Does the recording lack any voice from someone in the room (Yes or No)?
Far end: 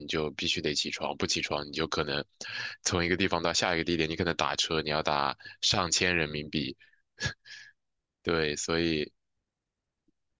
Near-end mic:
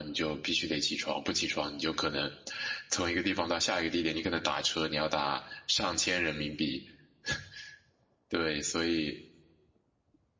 Yes